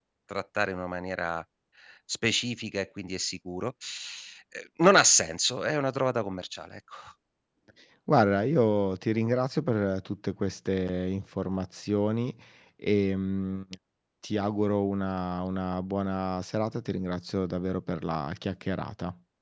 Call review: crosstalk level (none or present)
none